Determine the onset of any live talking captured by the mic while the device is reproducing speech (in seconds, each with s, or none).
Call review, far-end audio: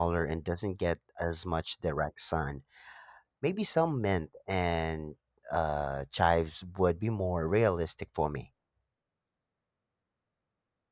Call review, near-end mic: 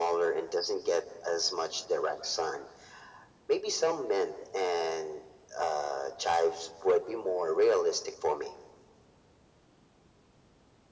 none